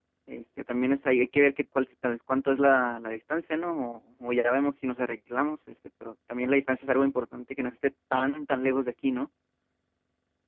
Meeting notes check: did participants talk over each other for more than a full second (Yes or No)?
No